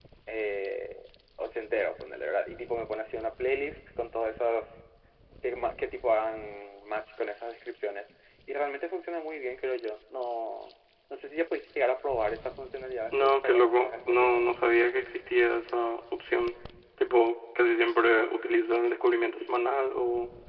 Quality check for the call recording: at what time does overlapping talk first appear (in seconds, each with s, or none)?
13.1 s